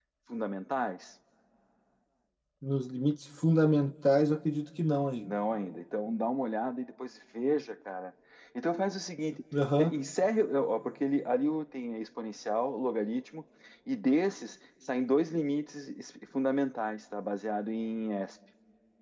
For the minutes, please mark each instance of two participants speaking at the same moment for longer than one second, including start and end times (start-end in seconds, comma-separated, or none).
none